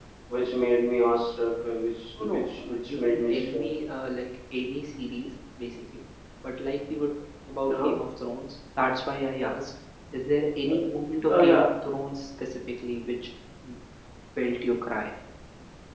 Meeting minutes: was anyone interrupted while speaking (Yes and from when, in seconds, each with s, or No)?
Yes, from 2.2 s